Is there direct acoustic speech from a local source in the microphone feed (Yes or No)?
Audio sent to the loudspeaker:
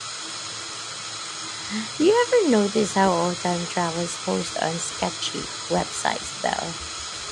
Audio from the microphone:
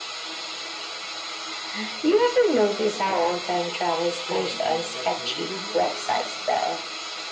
Yes